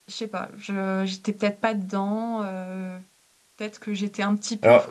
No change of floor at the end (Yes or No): Yes